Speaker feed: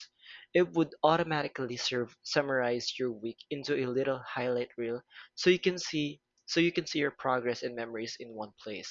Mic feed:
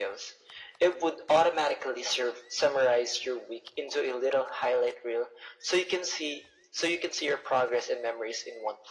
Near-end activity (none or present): none